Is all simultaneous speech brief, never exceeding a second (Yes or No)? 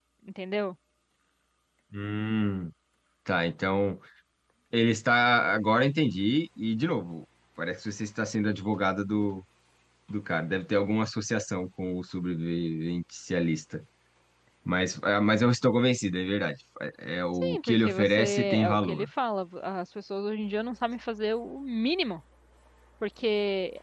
No